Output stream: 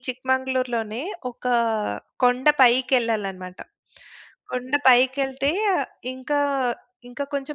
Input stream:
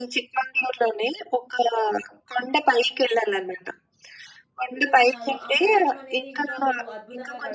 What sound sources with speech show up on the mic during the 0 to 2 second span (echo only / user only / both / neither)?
echo only